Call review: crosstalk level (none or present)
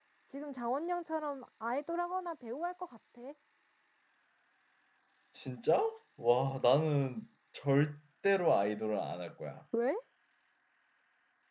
none